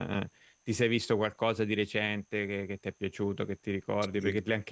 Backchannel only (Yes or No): Yes